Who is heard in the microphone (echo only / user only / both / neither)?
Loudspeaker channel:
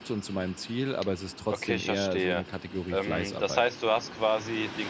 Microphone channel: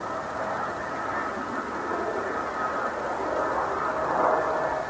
neither